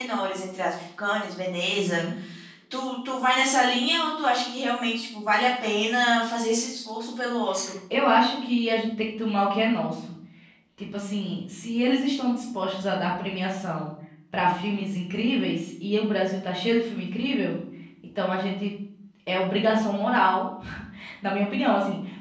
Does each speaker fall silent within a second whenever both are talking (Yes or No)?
Yes